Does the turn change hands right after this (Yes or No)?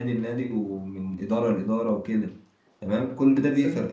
No